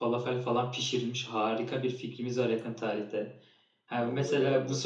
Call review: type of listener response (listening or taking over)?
listening